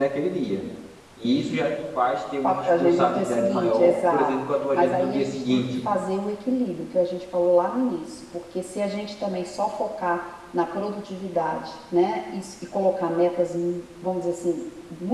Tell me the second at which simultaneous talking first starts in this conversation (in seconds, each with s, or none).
2.4 s